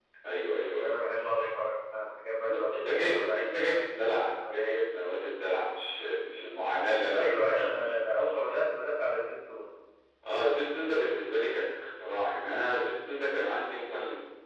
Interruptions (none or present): present